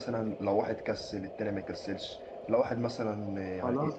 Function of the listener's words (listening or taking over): listening